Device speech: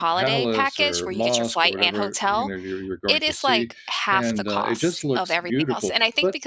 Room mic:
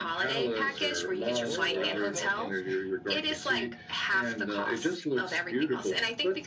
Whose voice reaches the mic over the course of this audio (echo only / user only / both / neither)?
both